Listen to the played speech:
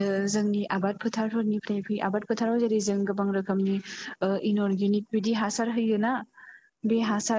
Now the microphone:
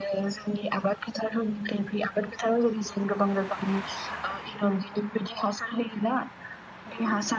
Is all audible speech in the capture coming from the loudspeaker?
Yes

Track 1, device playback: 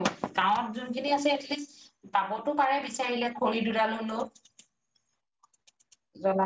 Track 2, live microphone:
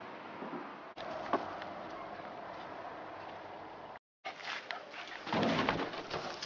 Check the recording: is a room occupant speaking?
No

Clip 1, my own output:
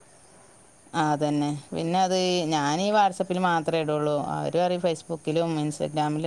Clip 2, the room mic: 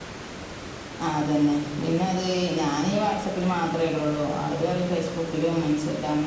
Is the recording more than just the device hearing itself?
No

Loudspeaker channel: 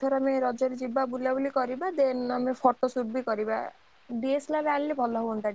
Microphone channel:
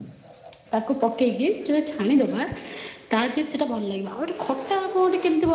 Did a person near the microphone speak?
Yes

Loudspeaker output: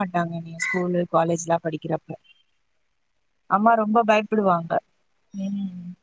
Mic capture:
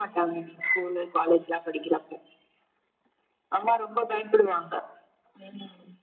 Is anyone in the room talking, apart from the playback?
No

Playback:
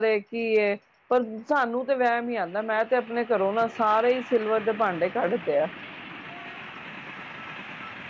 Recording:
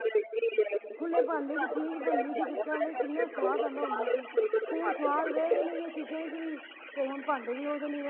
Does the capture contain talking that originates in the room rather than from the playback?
Yes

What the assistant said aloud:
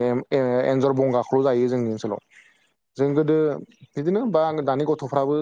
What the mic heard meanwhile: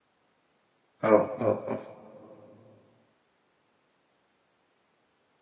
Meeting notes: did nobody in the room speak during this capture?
No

